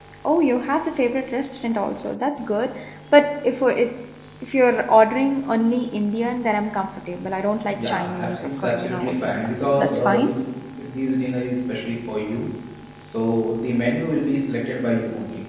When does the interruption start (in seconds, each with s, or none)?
7.7 s